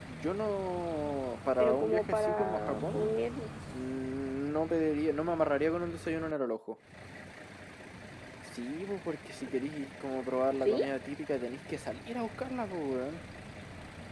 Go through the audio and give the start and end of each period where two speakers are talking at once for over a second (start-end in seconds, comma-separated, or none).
1.6-3.1